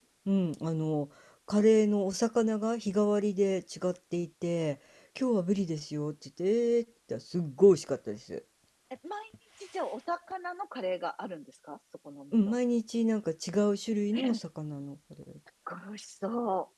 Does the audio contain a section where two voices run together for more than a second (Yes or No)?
No